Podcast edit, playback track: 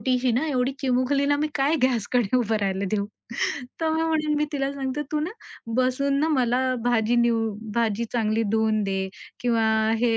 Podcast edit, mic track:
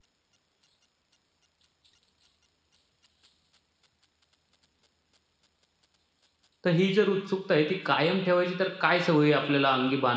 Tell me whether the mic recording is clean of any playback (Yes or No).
Yes